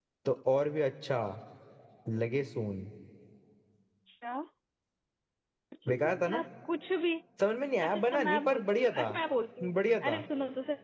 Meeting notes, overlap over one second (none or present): present